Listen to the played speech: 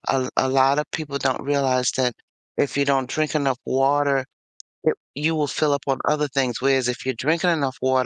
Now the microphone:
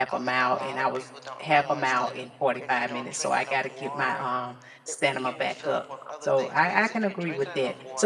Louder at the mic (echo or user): user